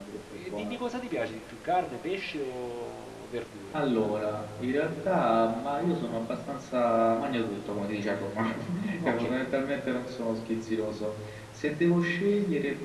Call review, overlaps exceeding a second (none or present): none